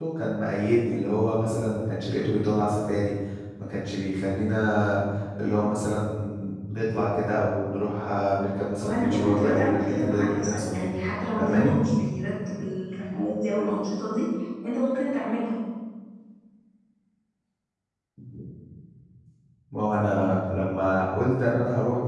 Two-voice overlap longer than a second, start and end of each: 8.8-10.9

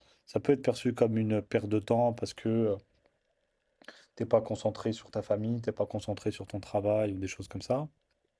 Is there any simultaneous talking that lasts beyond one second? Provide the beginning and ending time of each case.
none

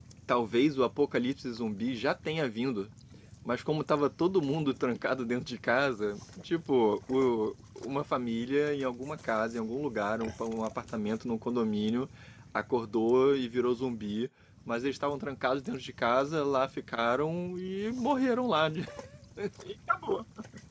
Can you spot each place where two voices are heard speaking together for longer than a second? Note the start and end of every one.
none

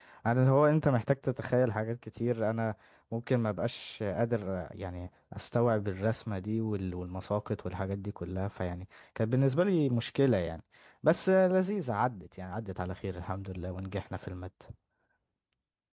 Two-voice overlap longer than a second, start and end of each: none

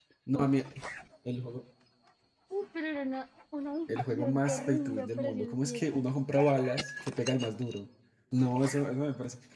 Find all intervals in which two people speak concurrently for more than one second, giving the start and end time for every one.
4.1-5.8

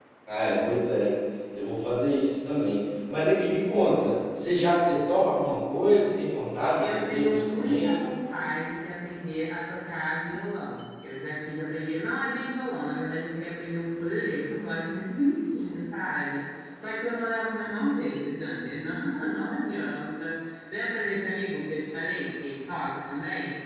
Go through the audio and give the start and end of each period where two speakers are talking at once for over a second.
6.8-8.1

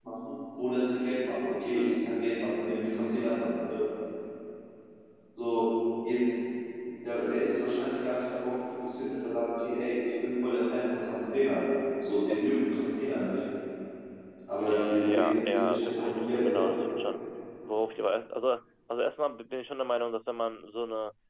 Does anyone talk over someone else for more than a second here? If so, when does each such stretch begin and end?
14.6-16.7

